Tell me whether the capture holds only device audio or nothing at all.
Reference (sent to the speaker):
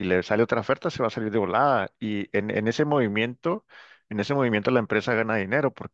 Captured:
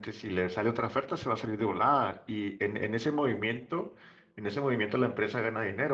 Yes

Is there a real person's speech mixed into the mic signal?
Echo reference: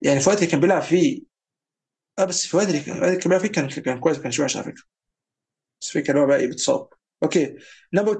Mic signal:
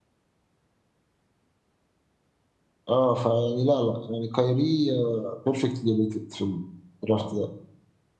Yes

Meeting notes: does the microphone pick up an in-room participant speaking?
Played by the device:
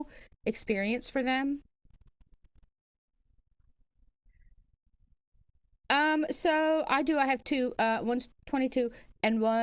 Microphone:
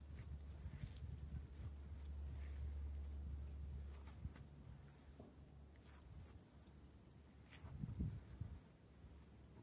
No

